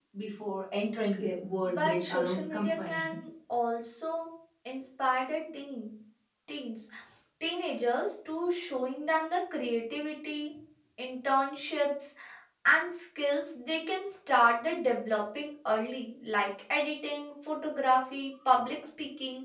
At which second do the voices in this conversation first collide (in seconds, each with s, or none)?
1.6 s